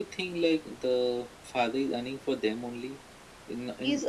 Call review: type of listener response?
taking over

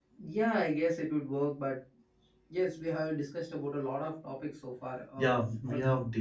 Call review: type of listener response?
taking over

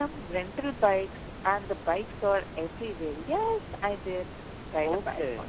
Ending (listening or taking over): taking over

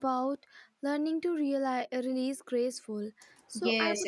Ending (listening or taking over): taking over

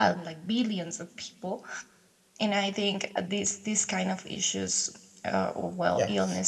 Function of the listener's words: listening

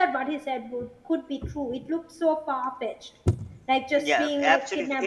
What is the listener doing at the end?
taking over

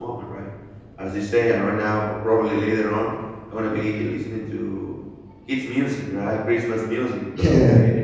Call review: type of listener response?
listening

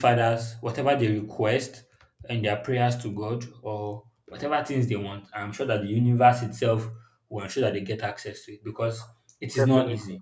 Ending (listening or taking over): listening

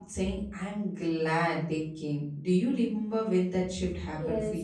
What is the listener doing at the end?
taking over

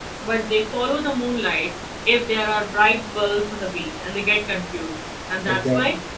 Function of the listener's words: listening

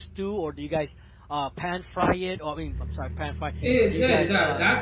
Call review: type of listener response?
taking over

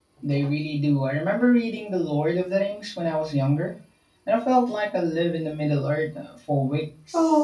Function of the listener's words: taking over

